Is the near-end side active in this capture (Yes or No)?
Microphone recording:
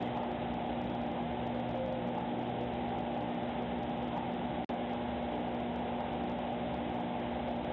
No